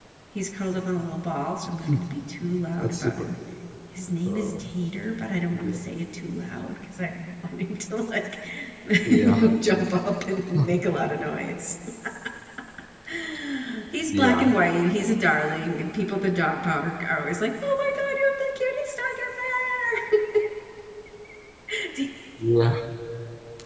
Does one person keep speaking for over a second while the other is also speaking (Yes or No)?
No